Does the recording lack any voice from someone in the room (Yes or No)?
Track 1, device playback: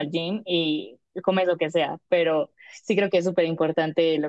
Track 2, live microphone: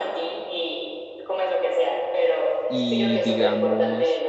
No